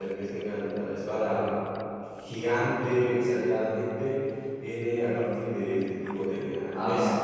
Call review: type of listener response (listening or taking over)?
taking over